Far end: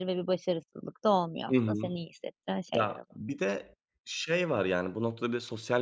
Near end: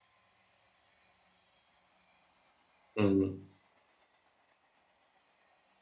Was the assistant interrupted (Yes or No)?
Yes